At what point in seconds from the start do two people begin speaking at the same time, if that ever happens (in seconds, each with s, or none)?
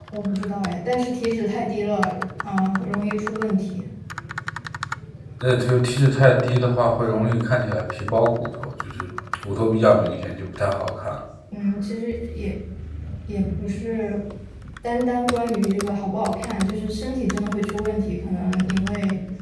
none